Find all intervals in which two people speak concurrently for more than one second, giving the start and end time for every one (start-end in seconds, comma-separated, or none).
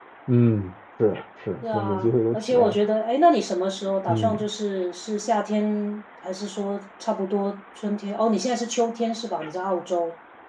1.6-2.9